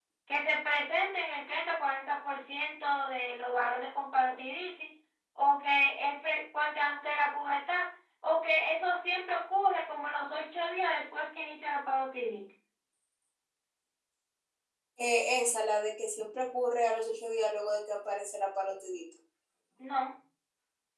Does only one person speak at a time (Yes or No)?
Yes